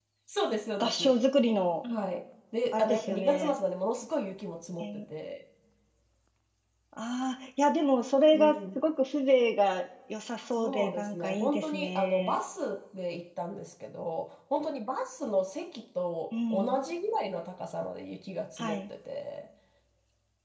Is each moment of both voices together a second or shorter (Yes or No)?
No